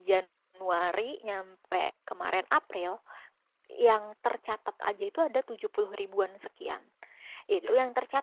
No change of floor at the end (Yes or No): Yes